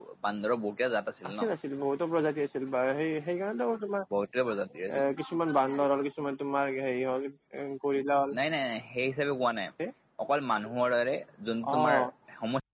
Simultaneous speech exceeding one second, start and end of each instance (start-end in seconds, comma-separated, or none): none